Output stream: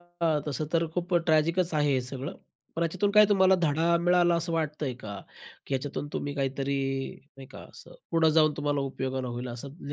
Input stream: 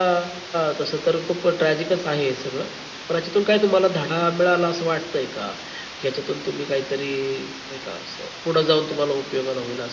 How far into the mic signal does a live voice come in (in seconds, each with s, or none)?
none